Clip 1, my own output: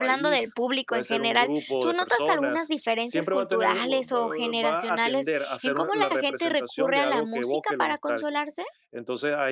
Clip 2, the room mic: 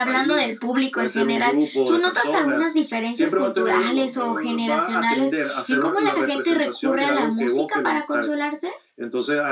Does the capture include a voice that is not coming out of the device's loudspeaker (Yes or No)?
No